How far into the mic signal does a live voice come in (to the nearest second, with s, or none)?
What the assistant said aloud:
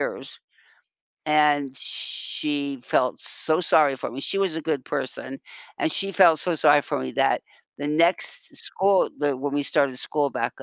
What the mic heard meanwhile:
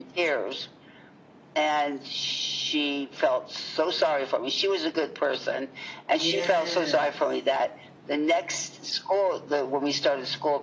6 s